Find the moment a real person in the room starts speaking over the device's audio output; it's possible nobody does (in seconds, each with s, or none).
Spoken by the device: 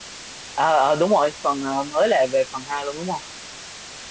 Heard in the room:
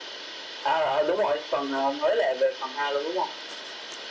none